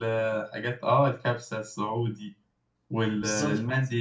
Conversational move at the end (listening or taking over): listening